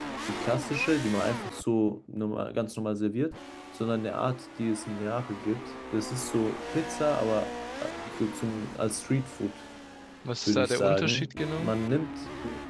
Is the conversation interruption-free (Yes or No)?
No